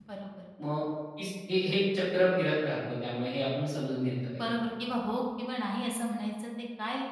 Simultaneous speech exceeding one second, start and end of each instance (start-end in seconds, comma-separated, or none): none